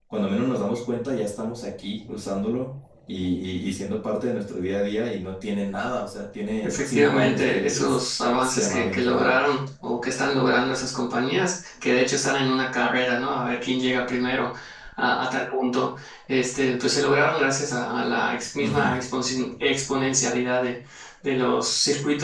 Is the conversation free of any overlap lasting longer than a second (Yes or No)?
No